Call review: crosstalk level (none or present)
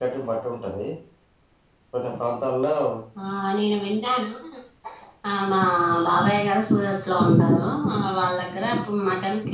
none